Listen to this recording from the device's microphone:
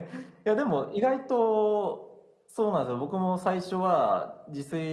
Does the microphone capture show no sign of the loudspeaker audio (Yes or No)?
No